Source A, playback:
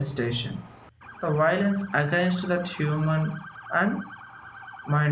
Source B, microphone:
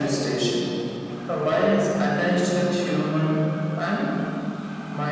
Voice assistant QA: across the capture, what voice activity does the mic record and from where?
echo only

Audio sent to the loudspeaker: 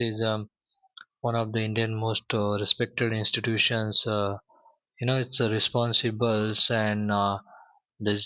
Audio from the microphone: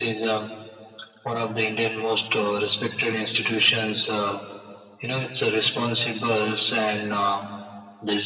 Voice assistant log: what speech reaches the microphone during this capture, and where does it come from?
echo only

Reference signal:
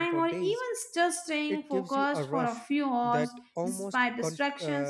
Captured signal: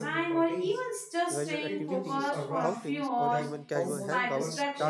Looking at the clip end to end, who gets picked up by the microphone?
both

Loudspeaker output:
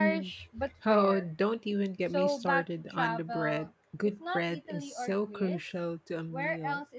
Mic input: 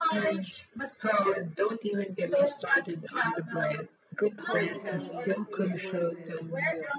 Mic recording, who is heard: both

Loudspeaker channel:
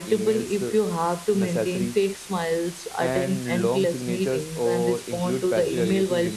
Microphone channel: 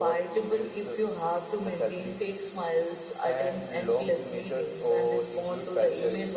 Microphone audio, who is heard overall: echo only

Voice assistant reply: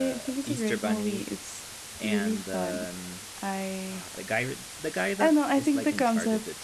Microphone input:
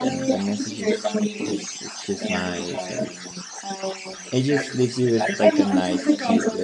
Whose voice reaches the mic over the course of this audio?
both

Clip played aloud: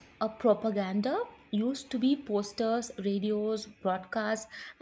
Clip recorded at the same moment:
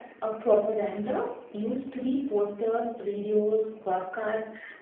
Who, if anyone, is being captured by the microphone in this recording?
echo only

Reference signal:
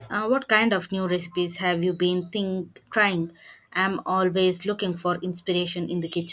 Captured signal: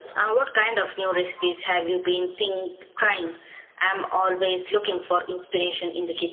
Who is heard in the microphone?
echo only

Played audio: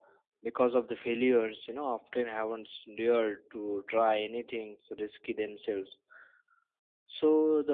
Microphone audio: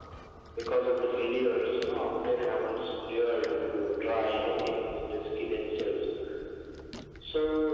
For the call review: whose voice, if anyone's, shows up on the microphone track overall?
echo only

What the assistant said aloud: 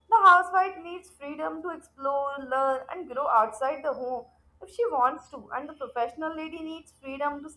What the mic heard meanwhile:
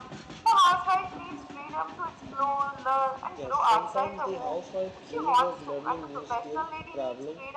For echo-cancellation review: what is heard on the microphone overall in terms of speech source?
both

